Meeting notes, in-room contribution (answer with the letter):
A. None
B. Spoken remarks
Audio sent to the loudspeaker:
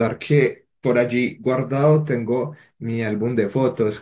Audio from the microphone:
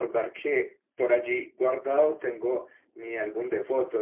A